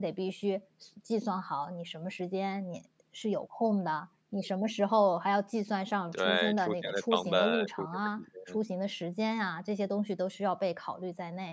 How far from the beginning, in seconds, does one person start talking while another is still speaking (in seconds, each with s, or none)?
6.1 s